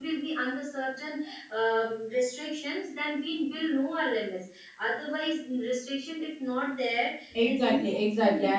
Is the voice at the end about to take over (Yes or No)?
Yes